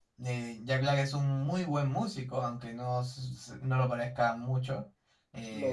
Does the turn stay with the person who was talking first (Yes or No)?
Yes